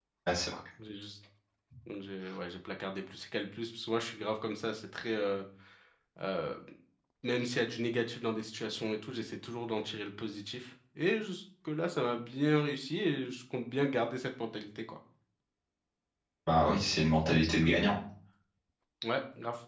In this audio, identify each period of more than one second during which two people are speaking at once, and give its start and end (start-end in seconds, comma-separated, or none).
none